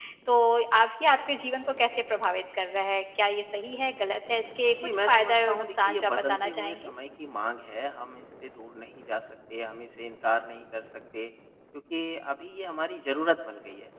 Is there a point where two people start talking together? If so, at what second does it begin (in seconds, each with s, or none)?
4.7 s